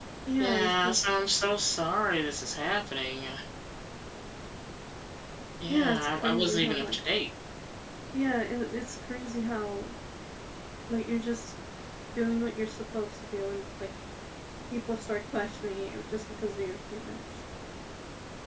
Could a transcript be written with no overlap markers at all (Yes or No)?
No